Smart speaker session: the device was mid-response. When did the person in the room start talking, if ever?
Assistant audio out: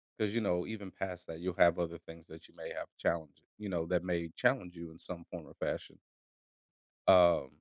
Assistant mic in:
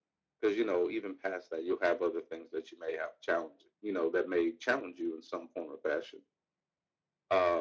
none

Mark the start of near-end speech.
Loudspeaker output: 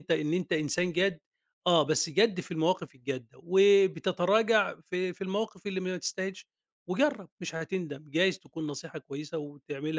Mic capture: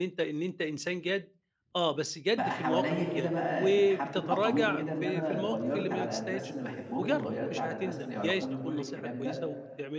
2 s

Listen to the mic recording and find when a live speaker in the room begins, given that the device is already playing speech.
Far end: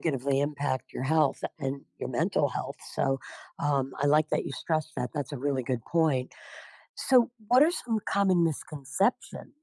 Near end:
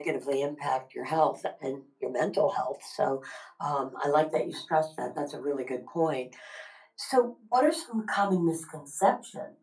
none

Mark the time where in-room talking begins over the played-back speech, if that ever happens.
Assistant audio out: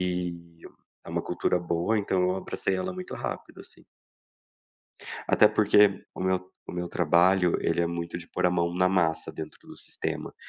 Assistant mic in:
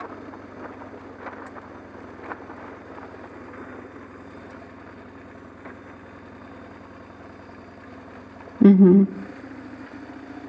9 s

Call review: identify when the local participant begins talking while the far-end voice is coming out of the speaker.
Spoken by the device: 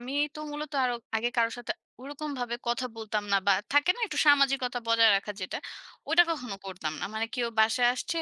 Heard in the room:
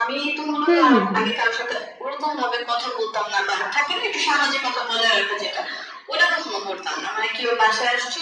1 s

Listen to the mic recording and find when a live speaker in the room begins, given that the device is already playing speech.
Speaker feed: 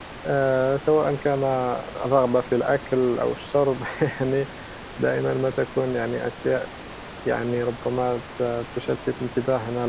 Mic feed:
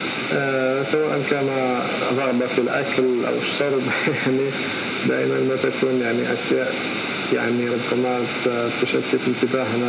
none

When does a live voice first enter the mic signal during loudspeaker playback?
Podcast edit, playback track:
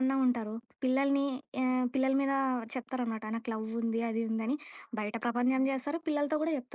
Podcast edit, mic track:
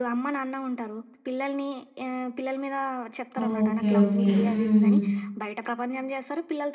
3 s

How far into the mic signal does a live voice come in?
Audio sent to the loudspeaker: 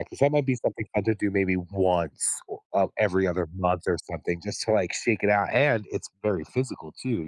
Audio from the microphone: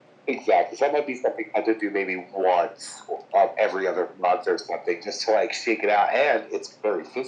none

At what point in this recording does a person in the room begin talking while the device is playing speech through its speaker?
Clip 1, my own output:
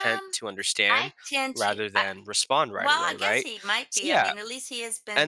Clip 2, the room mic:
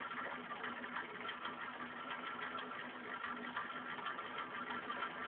none

